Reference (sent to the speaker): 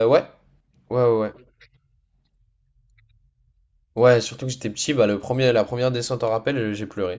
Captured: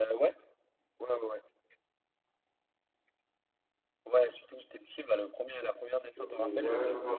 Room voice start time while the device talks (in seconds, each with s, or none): 6.1 s